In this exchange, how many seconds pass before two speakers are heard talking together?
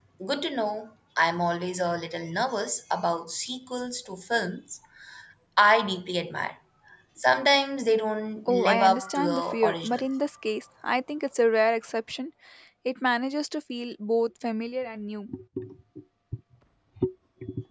8.5 s

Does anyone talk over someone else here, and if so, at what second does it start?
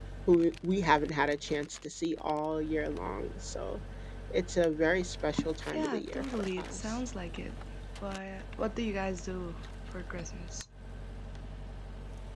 5.7 s

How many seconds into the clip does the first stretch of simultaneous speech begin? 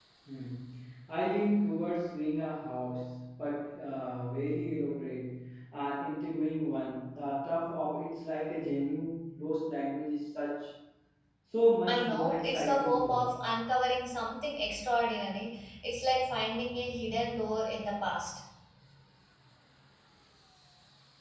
11.9 s

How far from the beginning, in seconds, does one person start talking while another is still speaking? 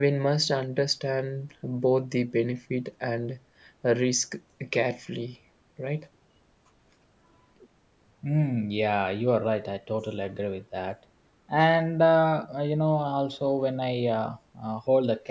none

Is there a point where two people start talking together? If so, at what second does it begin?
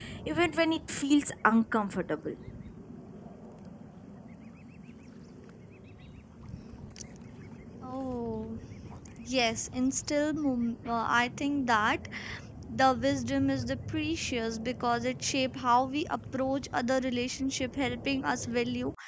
none

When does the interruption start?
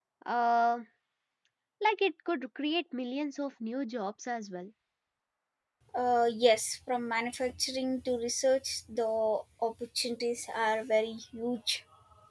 none

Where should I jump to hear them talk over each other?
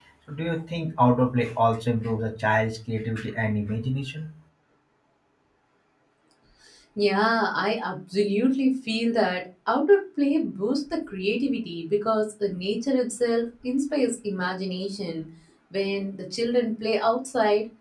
none

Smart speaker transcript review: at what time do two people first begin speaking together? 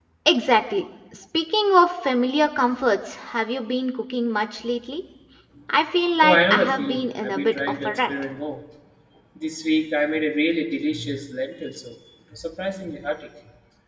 6.2 s

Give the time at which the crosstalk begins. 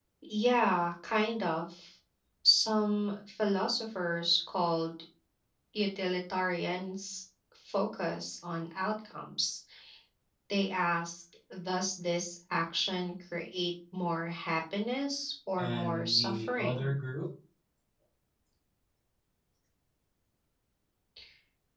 15.6 s

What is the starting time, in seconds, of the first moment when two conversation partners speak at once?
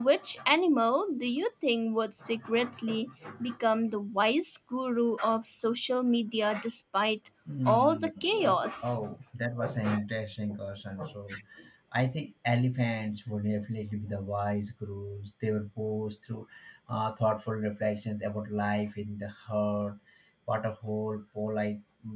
7.7 s

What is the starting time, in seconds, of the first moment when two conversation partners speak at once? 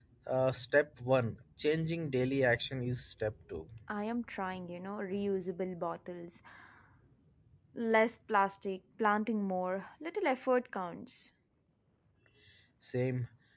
none

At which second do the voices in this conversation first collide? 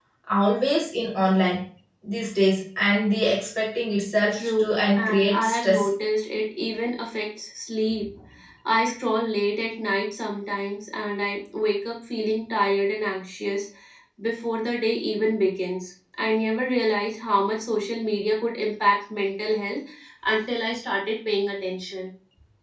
4.3 s

